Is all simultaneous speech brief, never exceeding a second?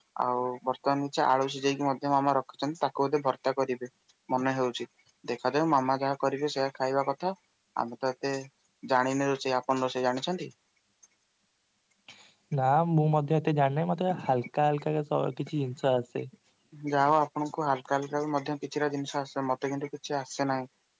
Yes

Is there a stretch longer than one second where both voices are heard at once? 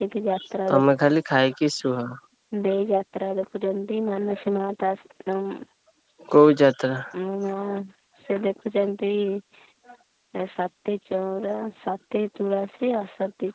No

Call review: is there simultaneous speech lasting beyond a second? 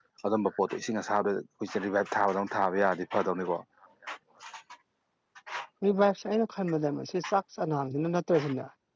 No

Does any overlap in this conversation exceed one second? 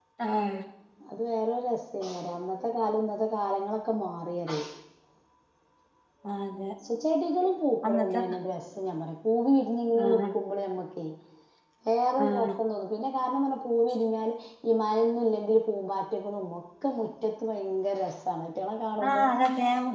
No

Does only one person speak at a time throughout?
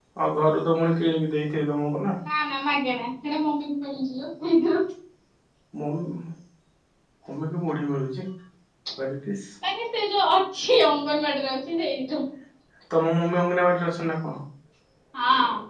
Yes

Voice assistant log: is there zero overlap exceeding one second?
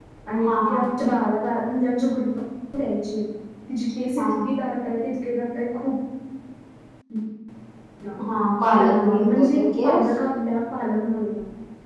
No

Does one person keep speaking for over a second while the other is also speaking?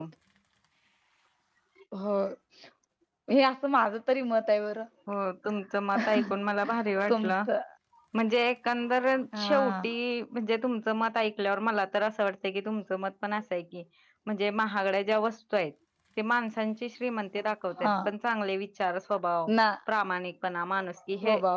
No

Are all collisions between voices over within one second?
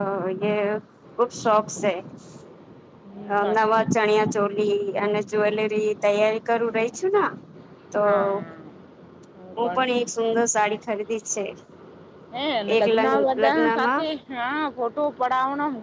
No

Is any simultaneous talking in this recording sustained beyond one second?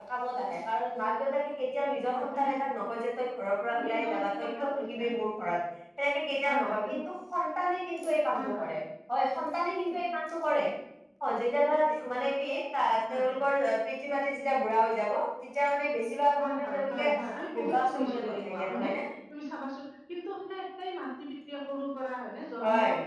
Yes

